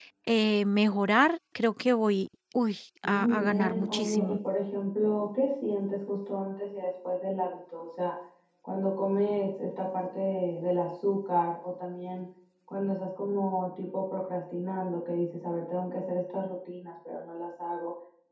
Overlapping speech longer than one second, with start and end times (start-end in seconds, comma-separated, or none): 3.0-4.4